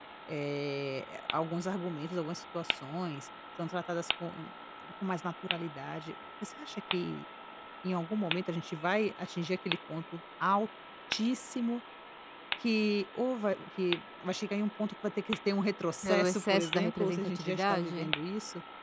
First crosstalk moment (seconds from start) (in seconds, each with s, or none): 16.0 s